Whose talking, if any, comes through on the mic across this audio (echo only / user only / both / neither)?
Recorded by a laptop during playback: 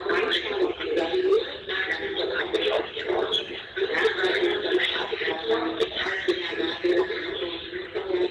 echo only